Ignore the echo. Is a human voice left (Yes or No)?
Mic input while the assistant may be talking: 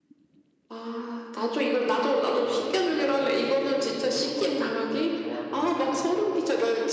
Yes